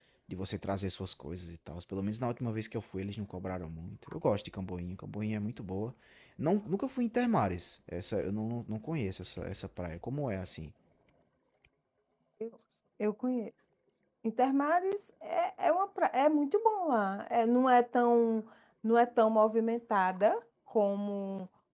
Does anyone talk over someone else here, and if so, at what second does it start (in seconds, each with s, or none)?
none